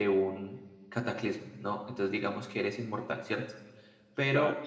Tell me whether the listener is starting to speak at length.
No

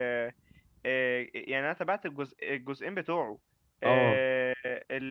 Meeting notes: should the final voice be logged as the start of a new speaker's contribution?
No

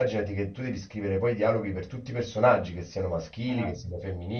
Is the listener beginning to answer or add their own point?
No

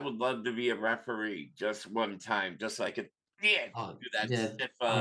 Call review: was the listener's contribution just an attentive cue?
No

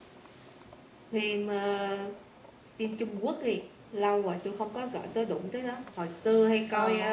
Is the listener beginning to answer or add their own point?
No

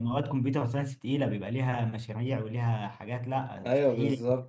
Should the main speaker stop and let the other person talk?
Yes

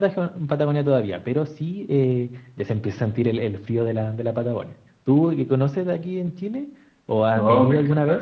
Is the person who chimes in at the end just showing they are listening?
No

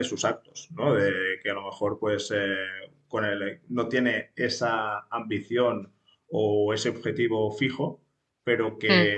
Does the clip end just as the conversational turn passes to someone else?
No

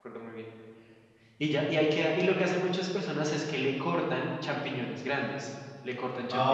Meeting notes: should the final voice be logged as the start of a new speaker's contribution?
No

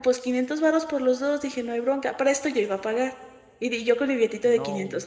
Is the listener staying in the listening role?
Yes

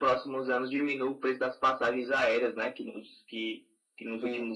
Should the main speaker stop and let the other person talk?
No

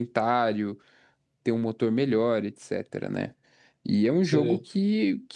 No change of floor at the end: Yes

